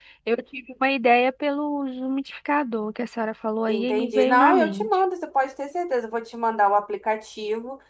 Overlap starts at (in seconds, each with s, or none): 3.7 s